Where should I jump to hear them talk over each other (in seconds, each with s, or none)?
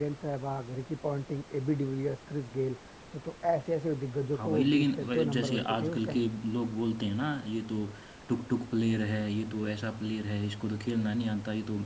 4.3 s